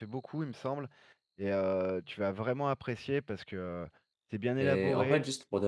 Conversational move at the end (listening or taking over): taking over